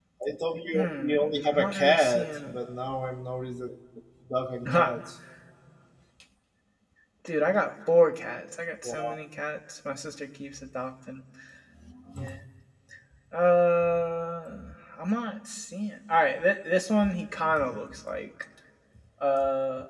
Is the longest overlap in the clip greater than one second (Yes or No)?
Yes